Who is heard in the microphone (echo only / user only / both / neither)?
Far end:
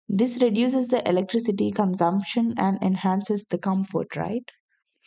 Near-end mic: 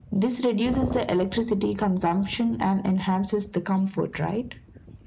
echo only